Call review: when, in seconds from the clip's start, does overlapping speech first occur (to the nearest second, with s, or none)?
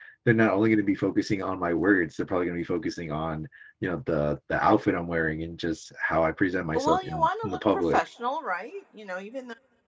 7 s